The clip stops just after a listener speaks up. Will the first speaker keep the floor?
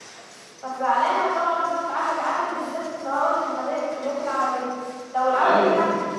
Yes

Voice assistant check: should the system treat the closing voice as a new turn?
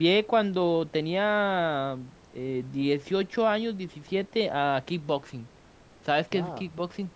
Yes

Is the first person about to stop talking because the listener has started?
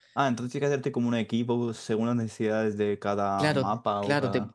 Yes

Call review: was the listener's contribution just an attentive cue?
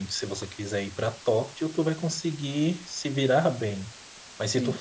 Yes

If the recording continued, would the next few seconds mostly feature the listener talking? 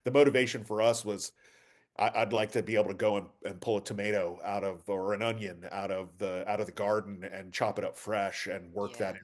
No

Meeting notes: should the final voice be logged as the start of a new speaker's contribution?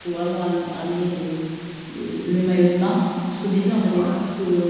No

